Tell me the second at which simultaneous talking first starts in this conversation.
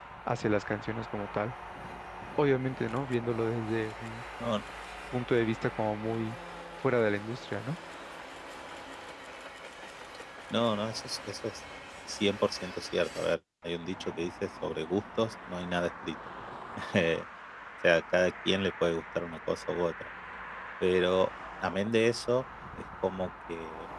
none

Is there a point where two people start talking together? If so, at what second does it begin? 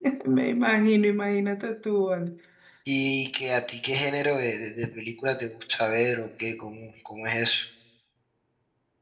none

